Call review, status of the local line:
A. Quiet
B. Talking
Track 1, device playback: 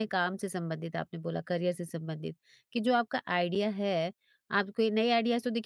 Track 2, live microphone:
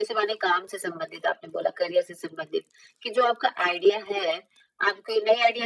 A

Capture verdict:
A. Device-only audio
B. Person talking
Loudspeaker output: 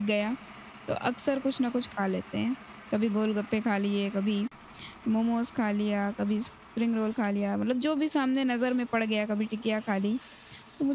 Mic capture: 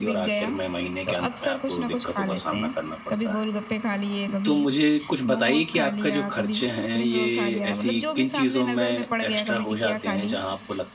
B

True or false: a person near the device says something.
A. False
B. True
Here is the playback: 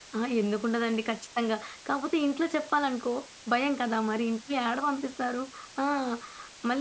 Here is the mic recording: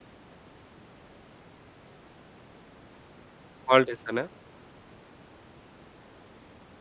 B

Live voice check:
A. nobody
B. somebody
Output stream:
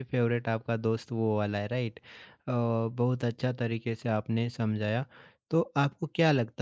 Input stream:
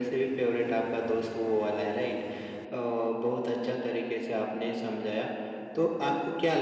A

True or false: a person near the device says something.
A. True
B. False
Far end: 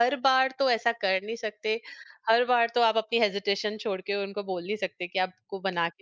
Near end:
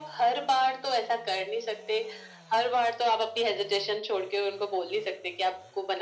B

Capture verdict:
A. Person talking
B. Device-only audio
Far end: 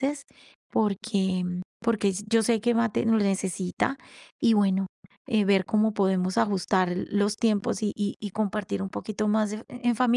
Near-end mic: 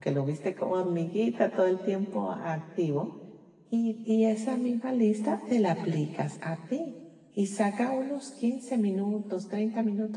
A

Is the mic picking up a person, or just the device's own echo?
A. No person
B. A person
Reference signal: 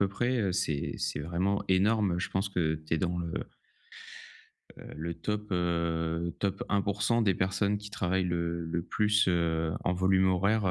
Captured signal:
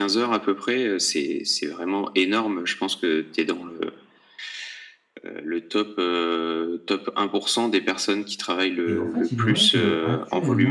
B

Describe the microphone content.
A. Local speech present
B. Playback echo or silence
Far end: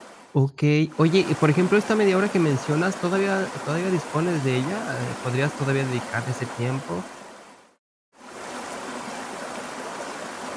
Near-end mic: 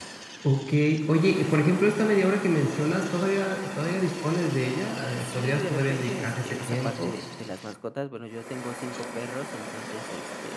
A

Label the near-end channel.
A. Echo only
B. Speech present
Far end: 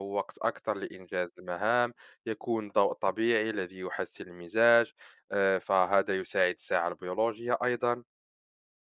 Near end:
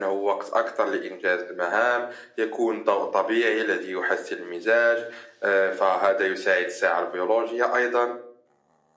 A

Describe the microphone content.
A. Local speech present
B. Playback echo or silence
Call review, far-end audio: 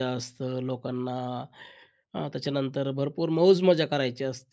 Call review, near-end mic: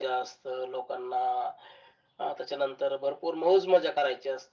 B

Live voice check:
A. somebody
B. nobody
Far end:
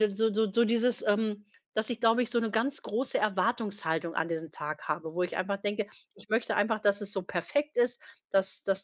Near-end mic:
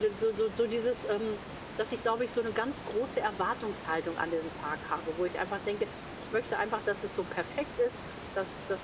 B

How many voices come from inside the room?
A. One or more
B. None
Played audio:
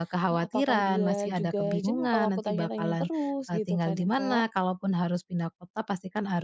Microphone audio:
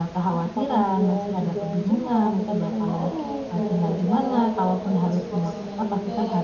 A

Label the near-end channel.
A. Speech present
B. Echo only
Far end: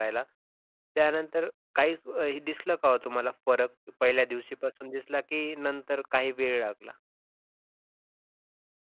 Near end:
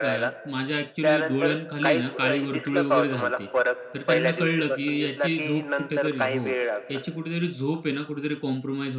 A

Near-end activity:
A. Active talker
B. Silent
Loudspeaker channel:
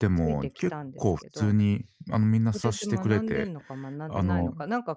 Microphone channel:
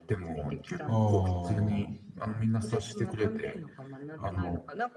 A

